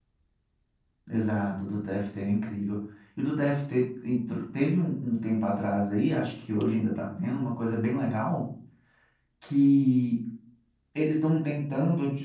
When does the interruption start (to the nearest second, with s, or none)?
none